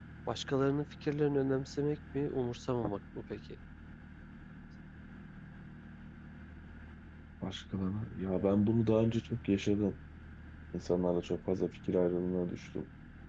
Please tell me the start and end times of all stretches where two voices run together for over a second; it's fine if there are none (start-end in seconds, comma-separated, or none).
none